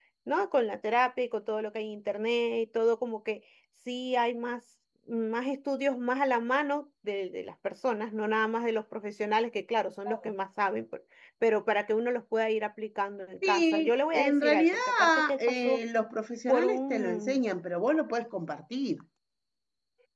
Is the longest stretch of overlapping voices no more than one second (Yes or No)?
No